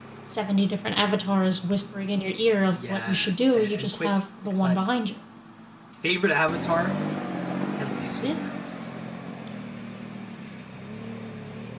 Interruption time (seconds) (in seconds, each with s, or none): 2.7 s